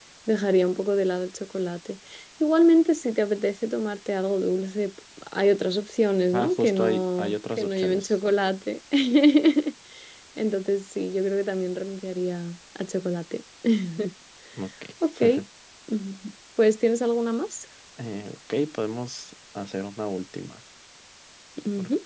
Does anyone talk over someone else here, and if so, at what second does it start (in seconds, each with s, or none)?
6.3 s